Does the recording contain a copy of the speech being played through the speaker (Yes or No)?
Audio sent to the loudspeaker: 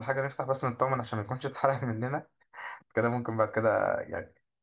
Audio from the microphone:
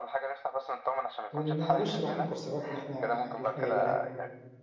Yes